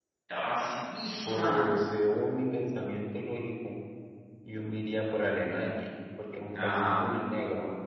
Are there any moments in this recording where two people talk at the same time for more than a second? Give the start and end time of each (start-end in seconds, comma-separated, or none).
none